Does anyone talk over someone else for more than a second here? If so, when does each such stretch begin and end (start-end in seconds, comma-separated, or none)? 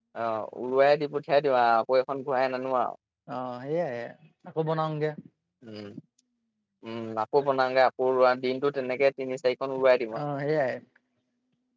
none